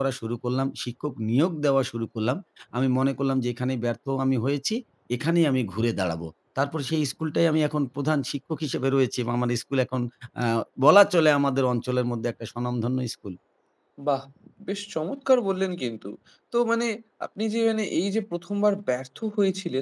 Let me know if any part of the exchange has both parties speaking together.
No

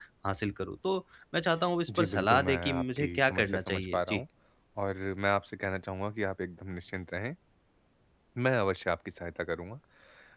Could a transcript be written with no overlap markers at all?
No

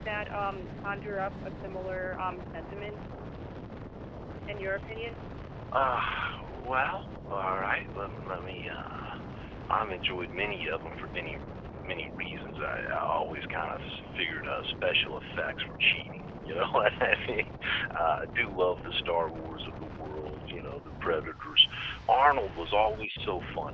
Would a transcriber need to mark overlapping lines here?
No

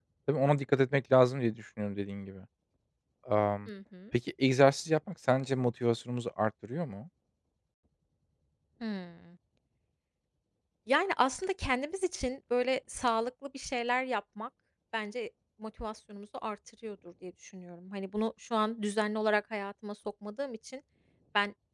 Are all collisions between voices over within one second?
Yes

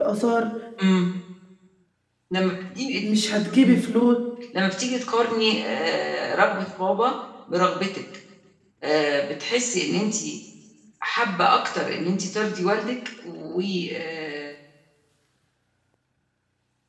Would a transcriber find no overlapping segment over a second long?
Yes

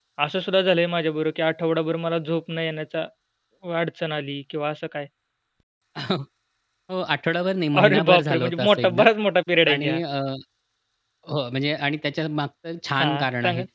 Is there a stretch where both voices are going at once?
Yes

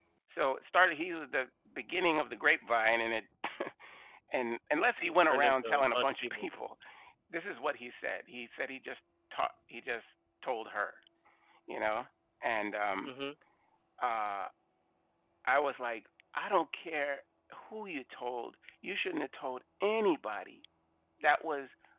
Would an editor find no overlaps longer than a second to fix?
No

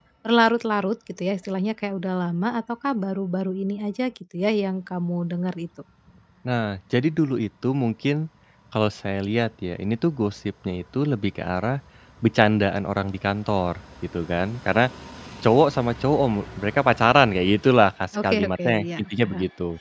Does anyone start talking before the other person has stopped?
Yes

